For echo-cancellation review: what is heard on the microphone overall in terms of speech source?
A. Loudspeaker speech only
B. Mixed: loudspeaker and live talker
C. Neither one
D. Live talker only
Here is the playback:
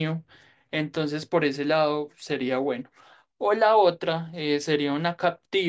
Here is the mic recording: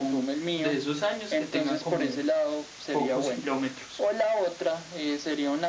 B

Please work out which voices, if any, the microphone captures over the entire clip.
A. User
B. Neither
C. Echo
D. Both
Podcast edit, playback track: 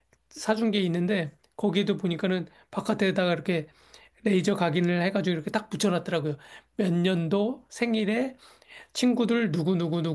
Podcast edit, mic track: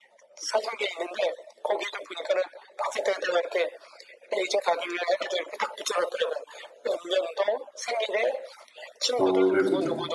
D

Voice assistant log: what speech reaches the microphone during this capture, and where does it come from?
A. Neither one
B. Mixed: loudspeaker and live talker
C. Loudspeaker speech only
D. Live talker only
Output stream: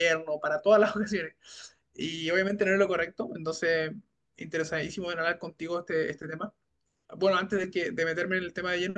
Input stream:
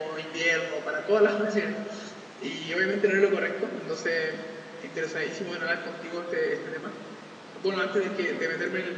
C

